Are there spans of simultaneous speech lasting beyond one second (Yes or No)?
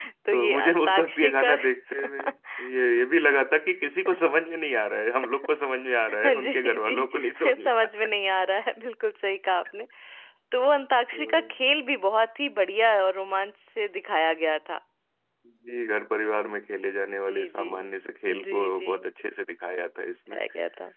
Yes